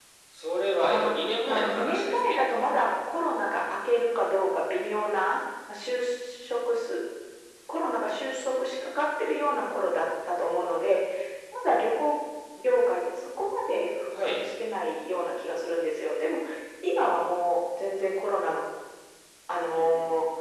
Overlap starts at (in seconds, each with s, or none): 0.8 s